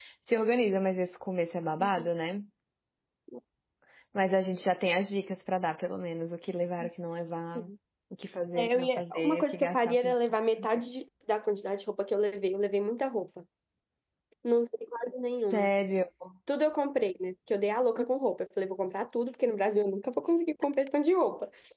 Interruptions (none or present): present